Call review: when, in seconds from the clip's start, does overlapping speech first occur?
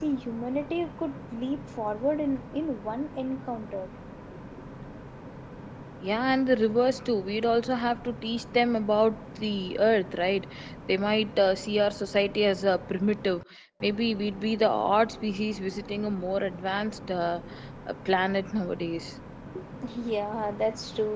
none

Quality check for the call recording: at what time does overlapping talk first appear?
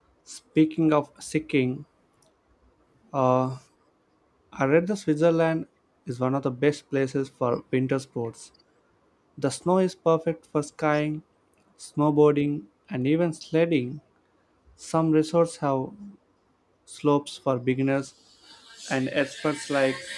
none

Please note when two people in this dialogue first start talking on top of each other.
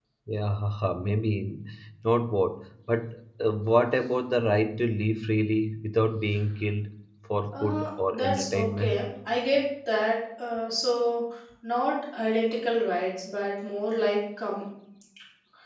8 s

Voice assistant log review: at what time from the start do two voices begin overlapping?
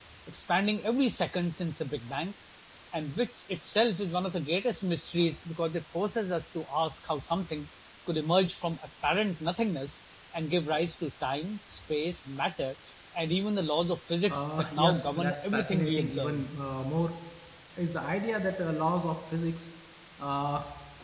14 s

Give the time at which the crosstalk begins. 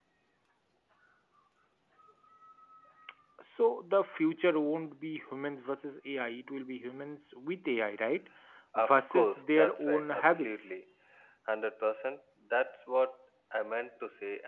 9 s

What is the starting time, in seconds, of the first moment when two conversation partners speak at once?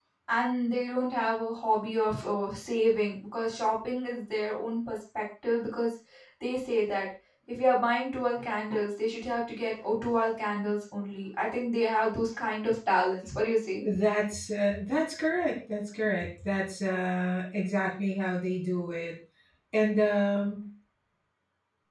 none

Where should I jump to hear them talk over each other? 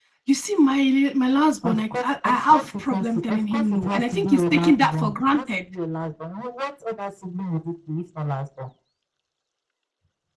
2 s

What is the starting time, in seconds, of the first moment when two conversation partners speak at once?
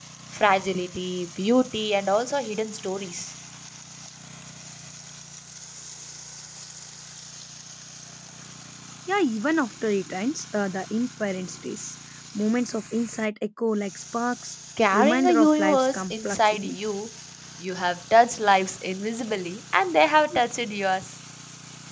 15 s

